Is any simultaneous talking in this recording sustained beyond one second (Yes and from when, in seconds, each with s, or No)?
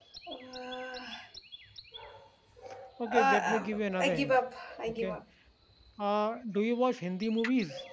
Yes, from 3.1 s